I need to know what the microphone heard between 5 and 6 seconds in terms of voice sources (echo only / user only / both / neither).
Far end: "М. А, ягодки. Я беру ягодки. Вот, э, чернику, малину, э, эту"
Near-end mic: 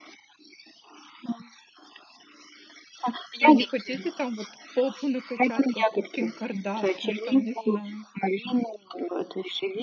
both